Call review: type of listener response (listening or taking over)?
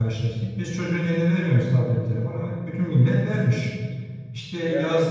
listening